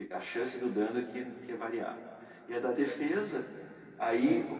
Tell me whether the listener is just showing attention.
Yes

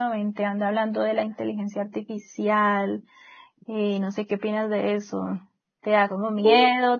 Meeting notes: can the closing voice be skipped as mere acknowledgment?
Yes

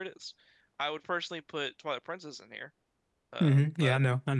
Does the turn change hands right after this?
Yes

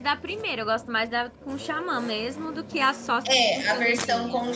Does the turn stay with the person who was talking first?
No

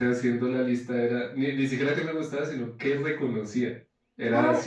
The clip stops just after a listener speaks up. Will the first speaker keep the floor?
No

